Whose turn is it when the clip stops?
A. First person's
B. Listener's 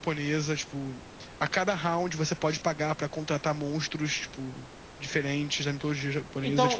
B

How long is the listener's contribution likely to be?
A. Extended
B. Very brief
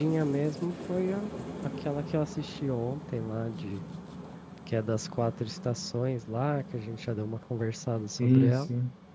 A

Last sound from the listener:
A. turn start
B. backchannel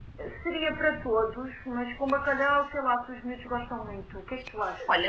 A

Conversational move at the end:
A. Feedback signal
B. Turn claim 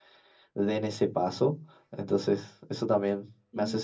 B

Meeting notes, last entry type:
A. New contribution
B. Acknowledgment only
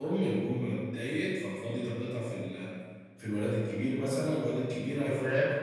B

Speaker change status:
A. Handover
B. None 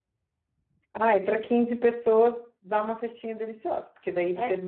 B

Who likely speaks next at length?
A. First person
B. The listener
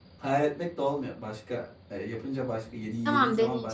A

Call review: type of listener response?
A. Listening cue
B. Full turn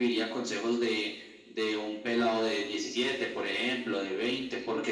A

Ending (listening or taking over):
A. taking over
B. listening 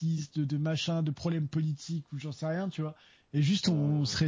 B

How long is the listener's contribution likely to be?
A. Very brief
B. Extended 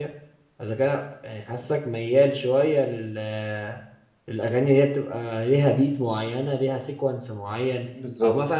A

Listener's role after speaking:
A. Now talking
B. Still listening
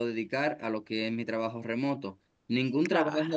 B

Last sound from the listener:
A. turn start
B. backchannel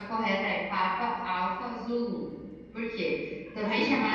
B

